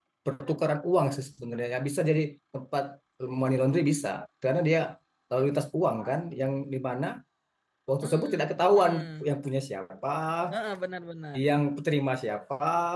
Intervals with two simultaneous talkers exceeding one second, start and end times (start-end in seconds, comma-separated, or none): 8.0-9.3